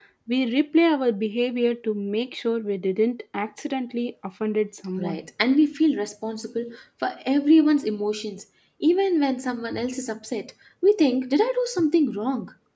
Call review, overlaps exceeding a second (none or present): none